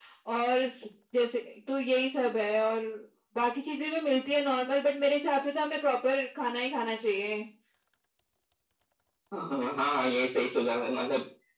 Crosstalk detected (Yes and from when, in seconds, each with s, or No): No